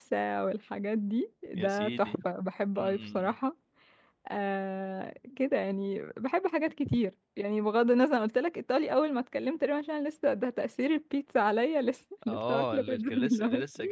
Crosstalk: present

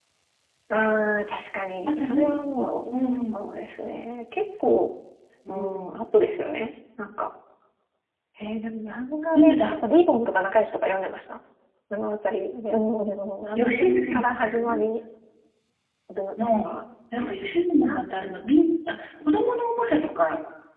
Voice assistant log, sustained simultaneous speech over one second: present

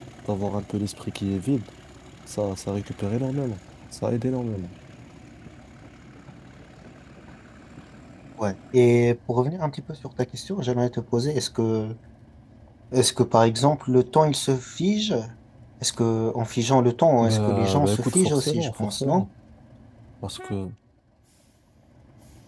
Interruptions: present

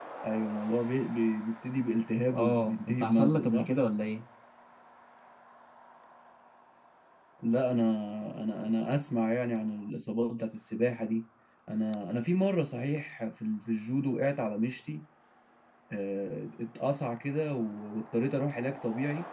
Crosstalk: present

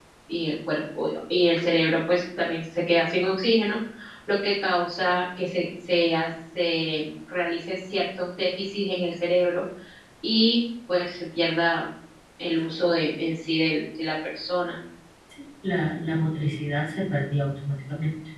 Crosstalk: none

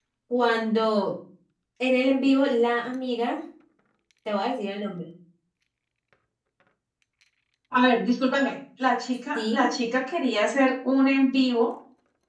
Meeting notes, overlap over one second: none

